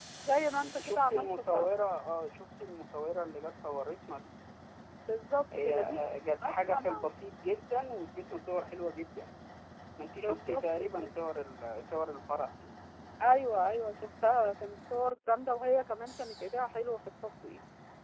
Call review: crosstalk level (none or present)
present